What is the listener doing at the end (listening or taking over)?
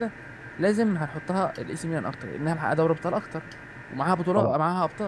listening